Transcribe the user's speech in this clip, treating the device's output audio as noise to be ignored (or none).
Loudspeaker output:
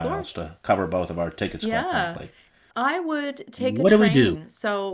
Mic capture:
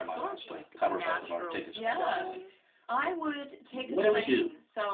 like natural stone.